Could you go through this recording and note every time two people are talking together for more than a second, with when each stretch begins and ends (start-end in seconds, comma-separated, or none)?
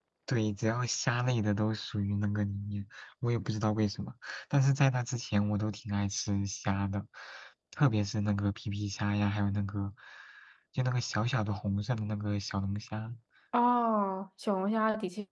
none